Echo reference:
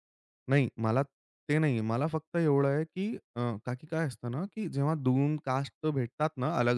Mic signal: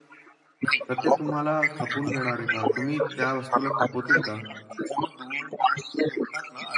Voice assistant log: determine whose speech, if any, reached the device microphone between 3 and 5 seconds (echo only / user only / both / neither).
both